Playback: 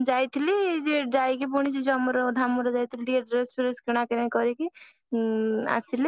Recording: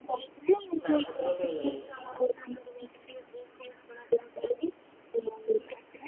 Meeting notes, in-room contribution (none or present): present